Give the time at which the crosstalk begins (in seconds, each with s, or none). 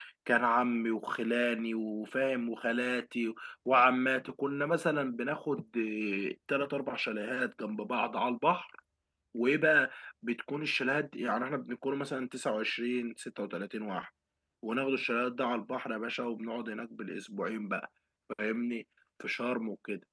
none